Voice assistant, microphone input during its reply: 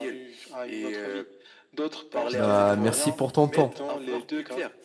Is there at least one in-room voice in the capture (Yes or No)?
Yes